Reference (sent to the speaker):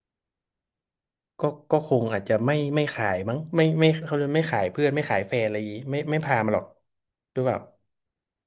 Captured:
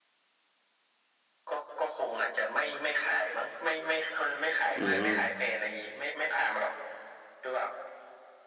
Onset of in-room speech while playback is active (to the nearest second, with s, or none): 5 s